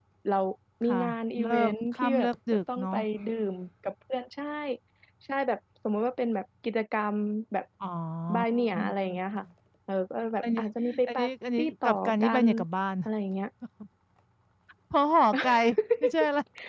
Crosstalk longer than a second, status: present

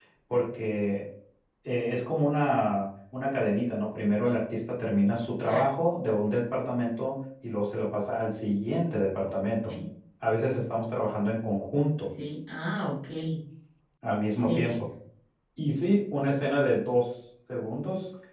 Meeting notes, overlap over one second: none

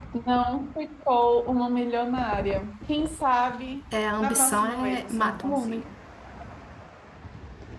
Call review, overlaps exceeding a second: present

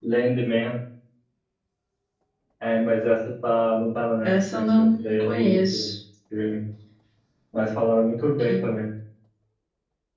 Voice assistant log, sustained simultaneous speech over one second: present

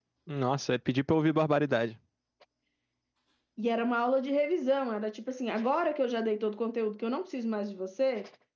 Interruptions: none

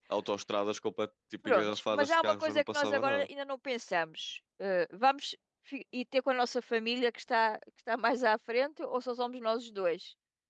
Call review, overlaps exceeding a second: present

